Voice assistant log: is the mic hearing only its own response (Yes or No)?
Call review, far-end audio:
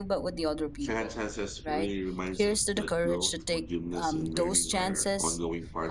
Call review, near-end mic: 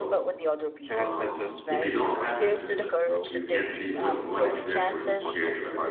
No